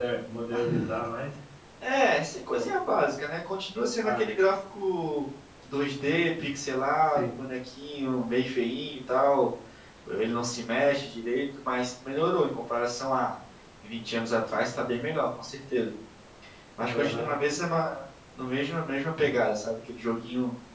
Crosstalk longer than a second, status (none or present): none